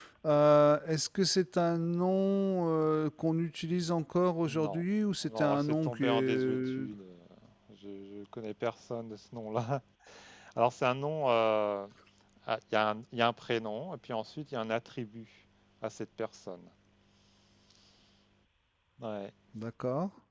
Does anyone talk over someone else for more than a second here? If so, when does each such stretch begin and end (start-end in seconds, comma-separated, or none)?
5.3-6.9